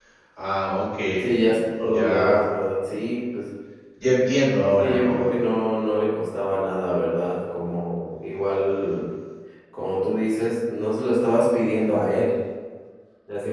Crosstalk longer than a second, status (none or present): none